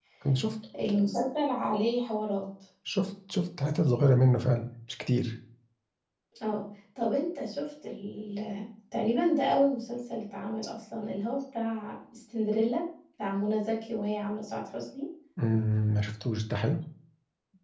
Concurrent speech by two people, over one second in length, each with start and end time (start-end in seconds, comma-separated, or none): none